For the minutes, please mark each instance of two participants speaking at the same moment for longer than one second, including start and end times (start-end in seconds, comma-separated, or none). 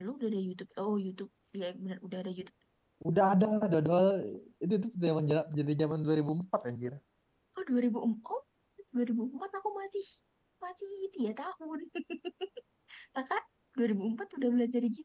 none